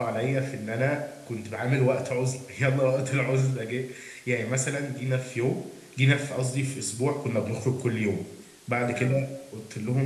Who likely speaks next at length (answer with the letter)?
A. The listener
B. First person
B